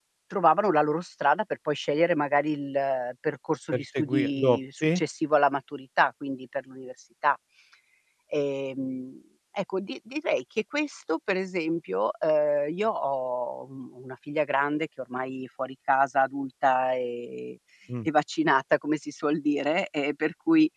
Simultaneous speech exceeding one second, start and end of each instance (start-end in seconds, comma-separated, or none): 3.7-5.0